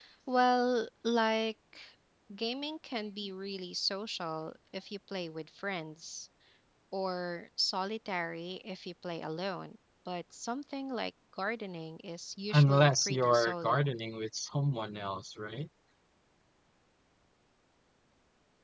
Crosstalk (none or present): present